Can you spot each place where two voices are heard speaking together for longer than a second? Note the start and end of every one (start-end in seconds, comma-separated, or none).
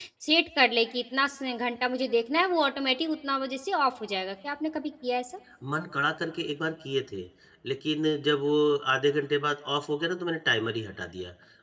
none